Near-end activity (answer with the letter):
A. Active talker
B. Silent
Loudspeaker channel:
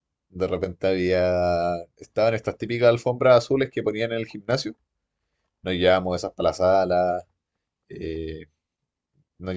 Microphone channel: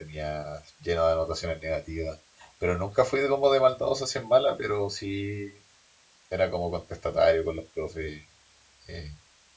A